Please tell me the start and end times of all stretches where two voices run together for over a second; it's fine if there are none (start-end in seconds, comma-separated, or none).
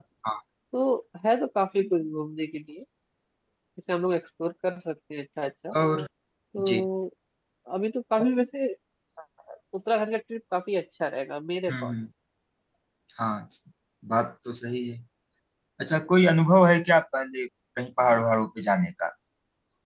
none